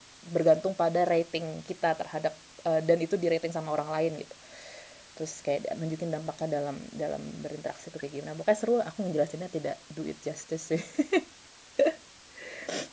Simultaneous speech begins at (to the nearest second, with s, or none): none